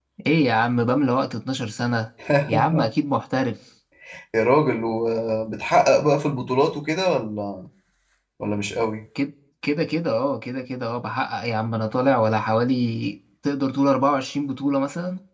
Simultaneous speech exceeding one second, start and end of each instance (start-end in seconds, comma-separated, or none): none